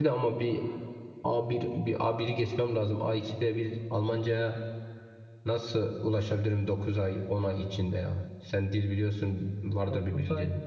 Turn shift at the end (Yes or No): Yes